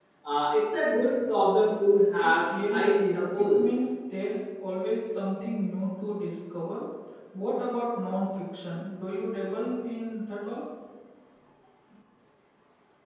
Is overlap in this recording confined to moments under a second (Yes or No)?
No